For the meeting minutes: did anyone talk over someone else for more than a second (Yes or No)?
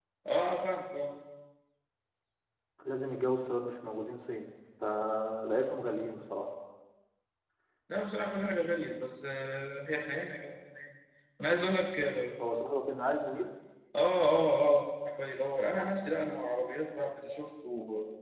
No